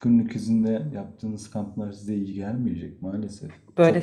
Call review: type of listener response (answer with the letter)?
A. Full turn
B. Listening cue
A